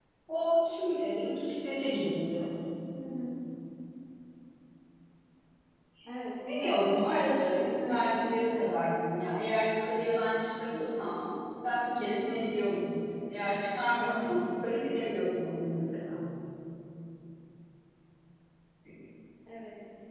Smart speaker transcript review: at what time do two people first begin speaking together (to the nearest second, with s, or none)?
6 s